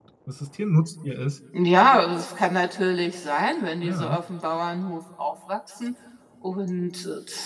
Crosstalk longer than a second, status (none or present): none